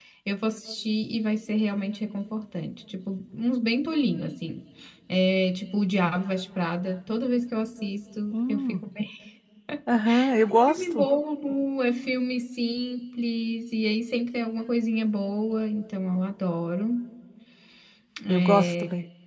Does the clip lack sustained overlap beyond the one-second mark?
Yes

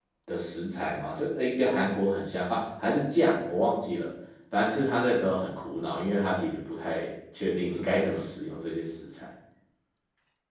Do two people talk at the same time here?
No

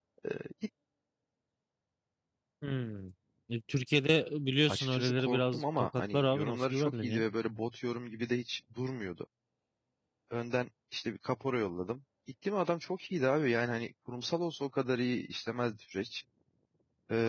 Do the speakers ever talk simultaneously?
Yes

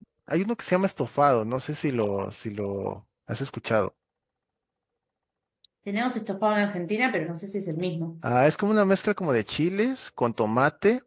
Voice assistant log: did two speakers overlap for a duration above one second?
No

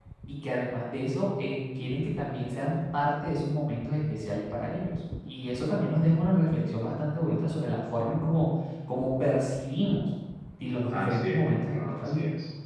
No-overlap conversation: No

